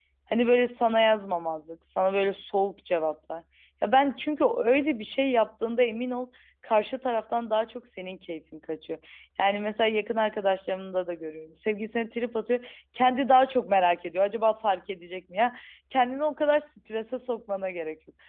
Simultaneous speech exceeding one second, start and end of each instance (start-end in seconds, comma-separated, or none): none